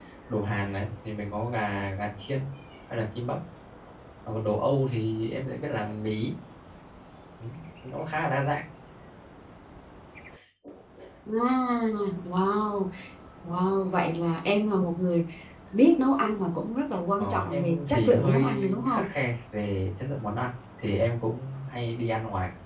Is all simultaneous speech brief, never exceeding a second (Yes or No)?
No